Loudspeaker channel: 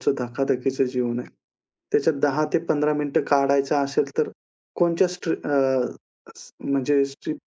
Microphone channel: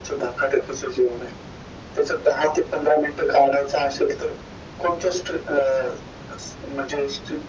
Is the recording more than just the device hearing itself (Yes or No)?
No